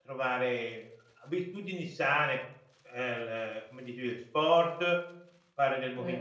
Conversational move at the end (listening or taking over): listening